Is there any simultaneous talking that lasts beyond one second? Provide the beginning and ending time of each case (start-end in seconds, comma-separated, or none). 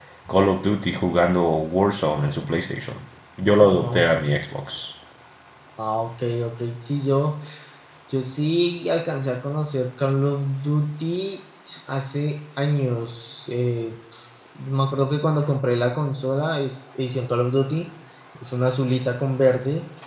none